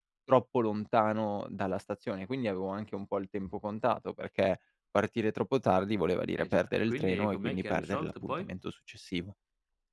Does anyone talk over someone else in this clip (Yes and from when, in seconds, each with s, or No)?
Yes, from 6.4 s